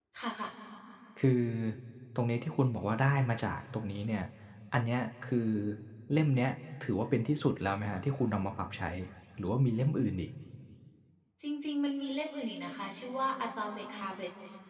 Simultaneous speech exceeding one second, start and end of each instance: none

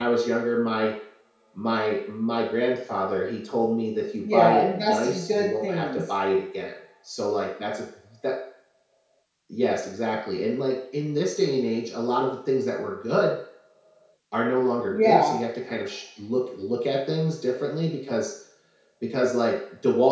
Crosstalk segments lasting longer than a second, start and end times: 4.3-6.0

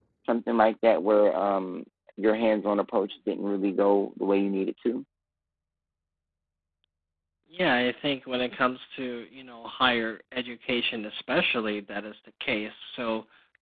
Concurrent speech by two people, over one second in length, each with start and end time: none

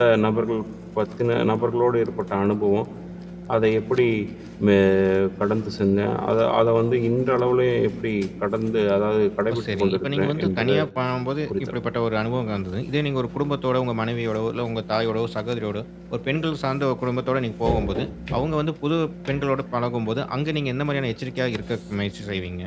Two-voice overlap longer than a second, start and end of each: 9.5-10.8

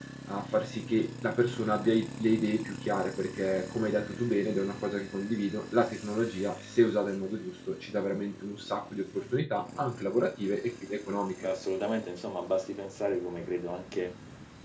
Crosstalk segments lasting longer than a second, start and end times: none

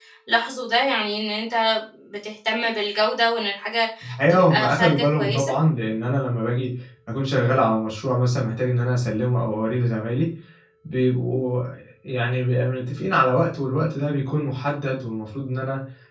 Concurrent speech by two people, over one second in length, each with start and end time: 4.3-5.5

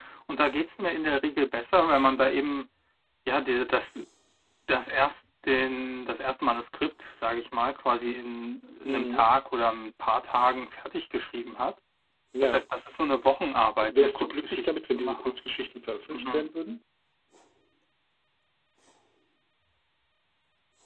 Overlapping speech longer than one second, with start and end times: 13.9-15.4

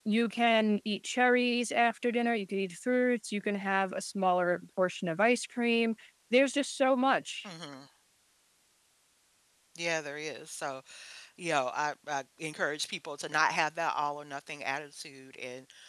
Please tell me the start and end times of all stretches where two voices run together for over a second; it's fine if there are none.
none

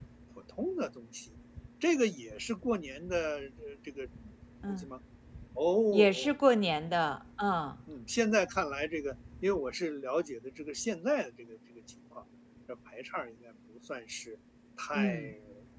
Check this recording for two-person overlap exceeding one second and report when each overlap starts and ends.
none

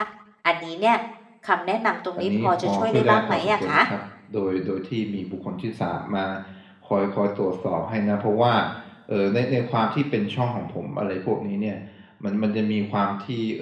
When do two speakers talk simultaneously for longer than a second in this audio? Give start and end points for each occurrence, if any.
2.2-3.8

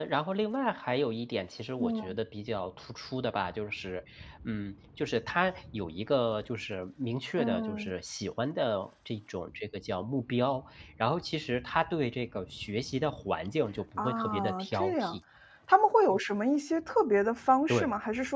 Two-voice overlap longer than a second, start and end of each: 14.0-15.2

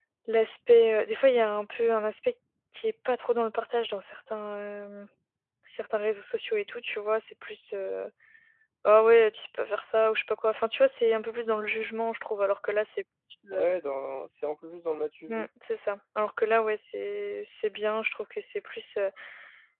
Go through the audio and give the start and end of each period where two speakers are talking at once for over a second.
none

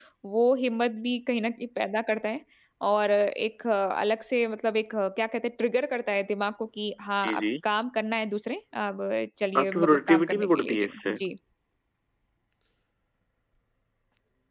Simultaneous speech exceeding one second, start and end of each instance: 9.6-11.2

